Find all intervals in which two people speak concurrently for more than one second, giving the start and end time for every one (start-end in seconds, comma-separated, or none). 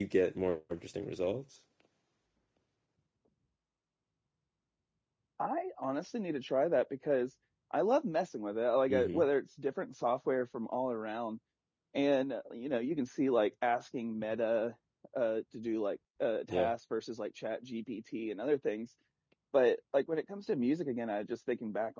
none